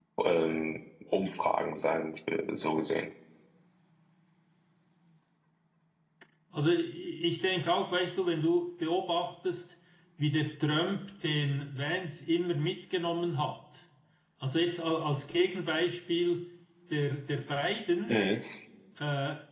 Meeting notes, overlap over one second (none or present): none